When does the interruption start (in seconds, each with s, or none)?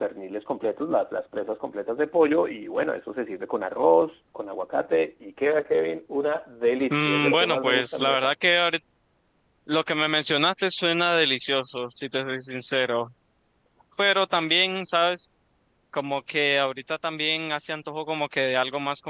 6.9 s